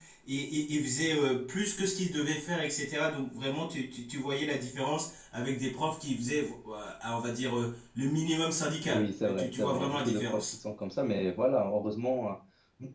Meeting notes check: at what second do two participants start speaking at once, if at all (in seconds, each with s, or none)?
8.8 s